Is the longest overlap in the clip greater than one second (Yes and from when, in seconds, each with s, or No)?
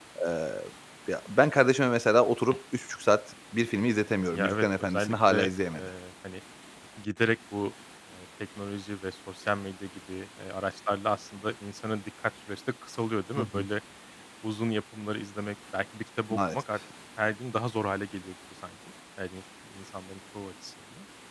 Yes, from 4.3 s